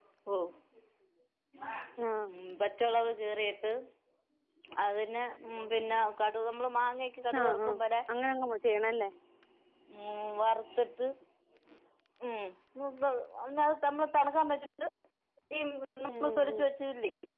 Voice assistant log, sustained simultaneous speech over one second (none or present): none